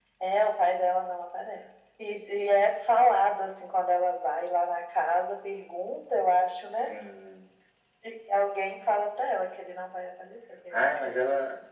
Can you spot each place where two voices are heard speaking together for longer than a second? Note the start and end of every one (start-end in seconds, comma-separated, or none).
none